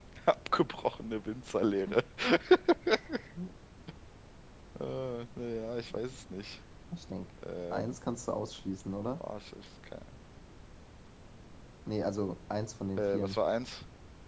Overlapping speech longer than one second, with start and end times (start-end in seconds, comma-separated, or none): none